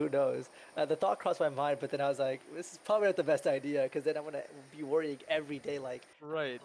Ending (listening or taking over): taking over